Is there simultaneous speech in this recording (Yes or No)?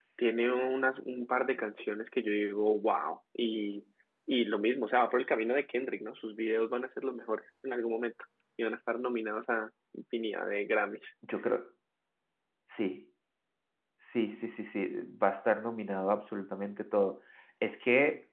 No